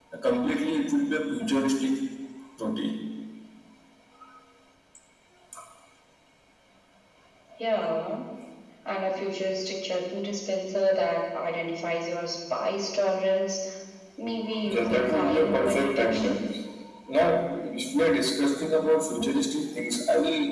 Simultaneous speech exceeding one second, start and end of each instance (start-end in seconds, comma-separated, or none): 14.7-16.4